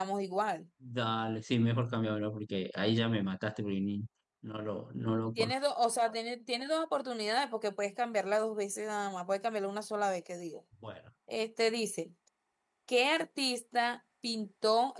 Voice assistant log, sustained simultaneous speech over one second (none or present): none